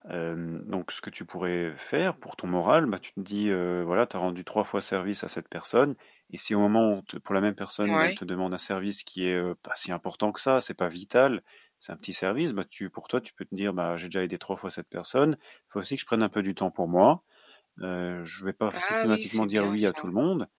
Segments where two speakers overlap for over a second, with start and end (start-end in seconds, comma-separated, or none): 18.7-20.0